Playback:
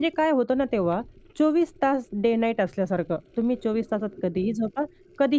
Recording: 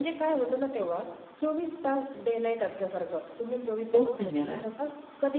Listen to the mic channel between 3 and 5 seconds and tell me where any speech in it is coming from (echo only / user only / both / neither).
both